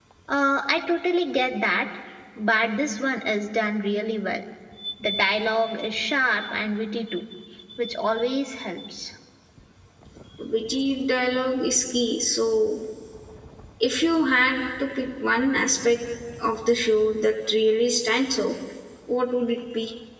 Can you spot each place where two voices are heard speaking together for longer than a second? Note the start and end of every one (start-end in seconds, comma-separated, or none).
none